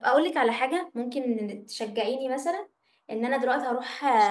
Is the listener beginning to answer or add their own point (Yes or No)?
No